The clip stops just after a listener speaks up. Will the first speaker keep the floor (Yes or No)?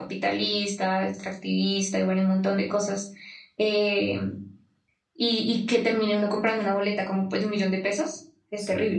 No